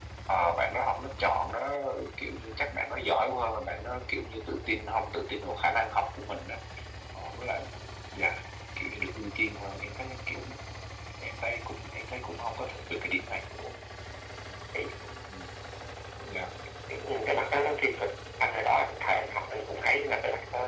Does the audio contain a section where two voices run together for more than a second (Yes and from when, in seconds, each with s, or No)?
No